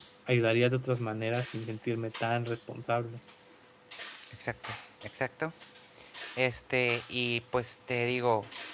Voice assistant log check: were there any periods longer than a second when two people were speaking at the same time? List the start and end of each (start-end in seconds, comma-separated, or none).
none